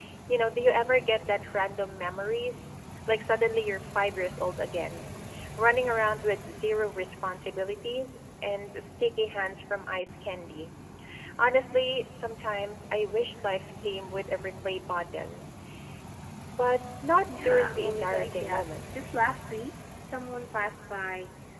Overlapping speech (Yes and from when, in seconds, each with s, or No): Yes, from 17.4 s